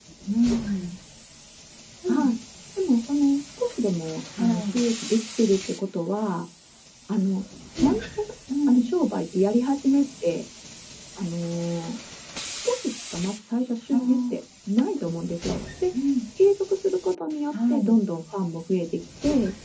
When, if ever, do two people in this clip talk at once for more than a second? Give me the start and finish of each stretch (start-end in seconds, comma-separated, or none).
none